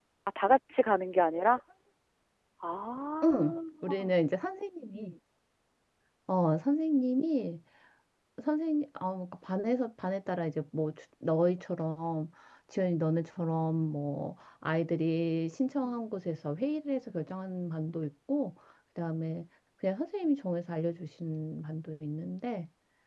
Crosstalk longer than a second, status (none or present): none